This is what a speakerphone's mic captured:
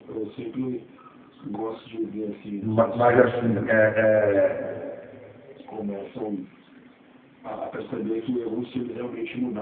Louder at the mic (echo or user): user